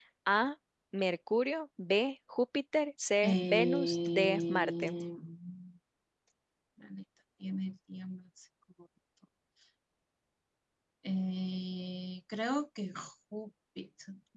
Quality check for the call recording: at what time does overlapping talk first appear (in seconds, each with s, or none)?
3.2 s